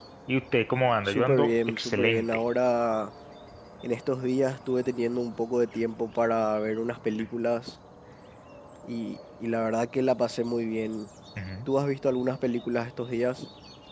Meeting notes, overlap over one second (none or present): present